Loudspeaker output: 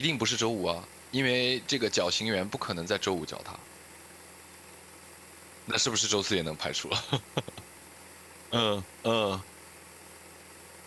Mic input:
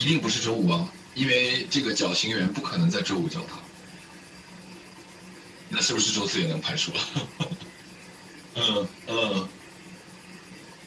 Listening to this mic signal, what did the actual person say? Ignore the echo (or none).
none